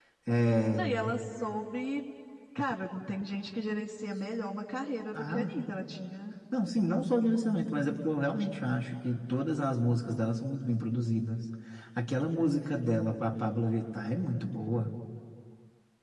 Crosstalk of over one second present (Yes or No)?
No